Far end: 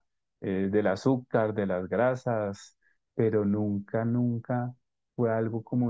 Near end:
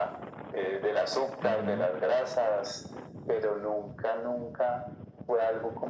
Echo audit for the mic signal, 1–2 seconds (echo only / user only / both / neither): both